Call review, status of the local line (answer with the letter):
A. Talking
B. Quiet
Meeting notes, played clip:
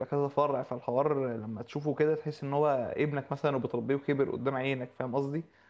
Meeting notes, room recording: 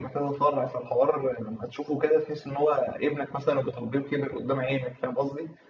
B